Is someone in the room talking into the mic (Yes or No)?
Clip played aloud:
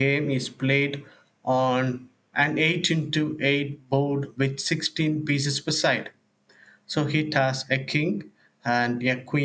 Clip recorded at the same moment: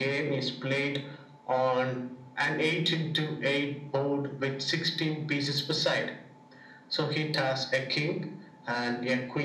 No